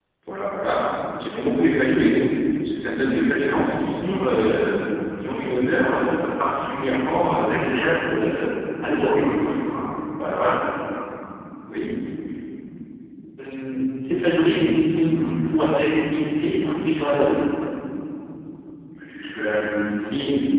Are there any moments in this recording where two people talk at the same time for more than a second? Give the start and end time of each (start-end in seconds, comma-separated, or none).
none